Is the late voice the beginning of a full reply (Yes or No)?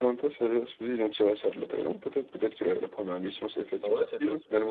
Yes